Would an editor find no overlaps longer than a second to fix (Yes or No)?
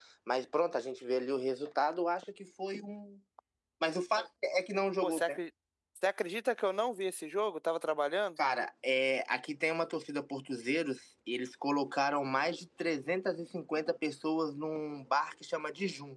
Yes